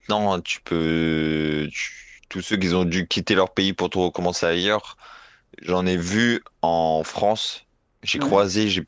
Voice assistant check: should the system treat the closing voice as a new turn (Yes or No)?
No